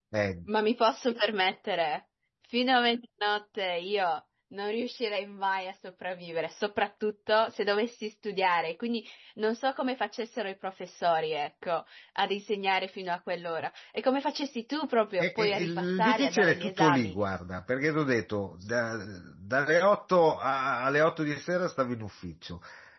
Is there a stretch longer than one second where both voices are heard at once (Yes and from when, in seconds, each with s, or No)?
Yes, from 15.2 s